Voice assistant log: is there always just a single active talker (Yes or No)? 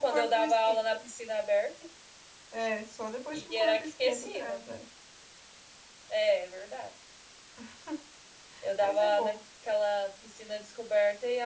No